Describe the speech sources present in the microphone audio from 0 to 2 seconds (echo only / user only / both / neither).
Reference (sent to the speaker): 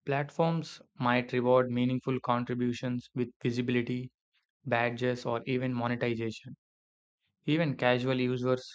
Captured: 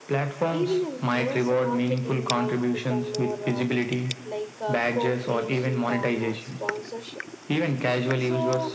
both